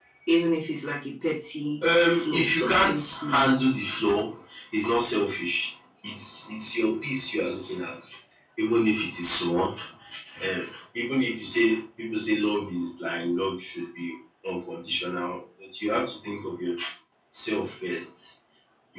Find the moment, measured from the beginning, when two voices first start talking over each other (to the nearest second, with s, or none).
2 s